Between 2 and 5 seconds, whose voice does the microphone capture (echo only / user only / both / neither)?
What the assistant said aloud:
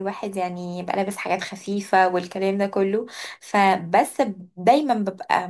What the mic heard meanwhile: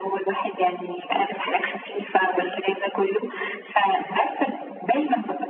echo only